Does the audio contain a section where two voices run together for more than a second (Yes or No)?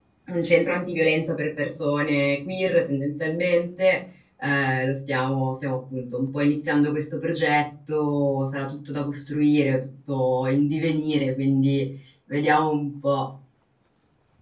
No